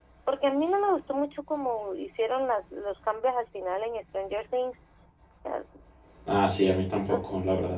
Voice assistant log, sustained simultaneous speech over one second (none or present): none